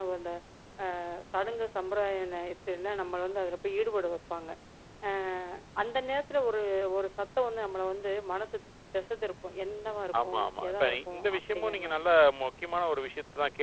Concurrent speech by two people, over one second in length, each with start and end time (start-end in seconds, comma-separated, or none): 10.2-12.0